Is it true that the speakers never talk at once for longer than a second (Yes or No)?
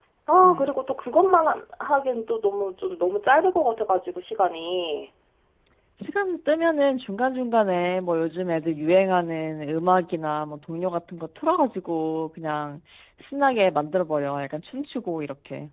Yes